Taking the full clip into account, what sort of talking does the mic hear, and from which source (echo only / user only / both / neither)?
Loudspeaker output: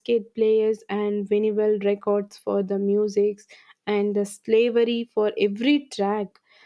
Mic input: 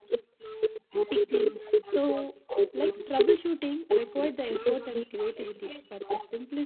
both